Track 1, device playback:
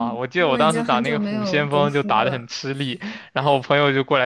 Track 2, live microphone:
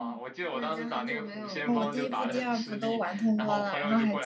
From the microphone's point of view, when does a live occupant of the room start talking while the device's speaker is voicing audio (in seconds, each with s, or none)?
1.6 s